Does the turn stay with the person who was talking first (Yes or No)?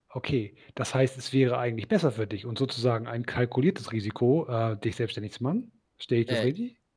No